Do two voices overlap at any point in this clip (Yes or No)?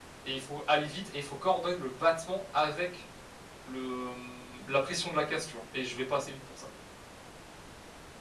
No